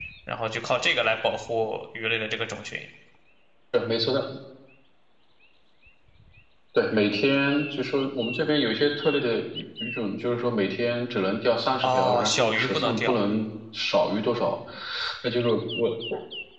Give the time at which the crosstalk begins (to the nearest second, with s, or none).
12 s